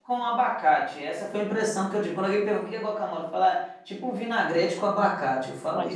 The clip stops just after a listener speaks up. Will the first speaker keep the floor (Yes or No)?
No